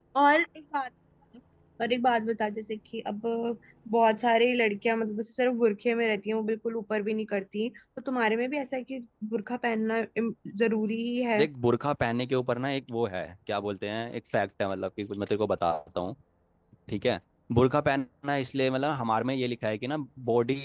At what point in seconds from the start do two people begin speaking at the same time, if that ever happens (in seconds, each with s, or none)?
none